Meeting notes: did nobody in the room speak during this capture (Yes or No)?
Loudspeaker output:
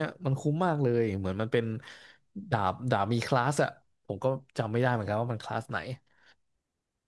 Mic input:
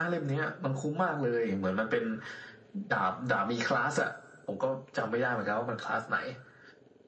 Yes